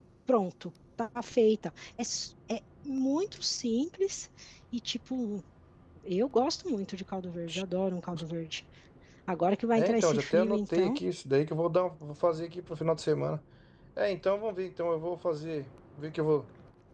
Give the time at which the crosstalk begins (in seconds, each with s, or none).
9.8 s